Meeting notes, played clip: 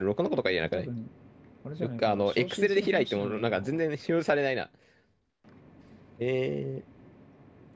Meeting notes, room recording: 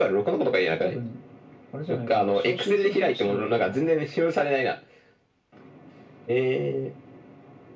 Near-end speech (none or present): none